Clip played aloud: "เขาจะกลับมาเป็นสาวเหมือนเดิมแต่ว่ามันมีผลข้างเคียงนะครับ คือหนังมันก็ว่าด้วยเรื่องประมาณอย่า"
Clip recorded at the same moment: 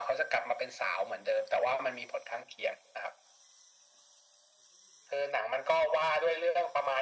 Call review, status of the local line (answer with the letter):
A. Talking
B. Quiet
B